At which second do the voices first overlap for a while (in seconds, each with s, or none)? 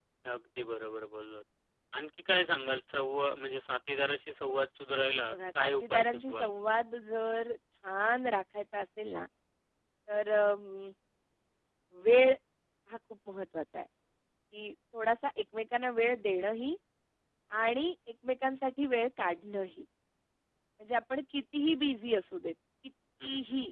5.3 s